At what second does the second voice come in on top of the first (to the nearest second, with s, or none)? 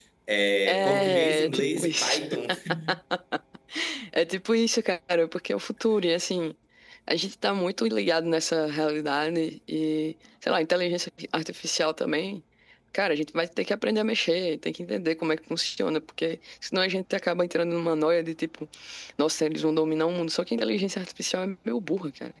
1 s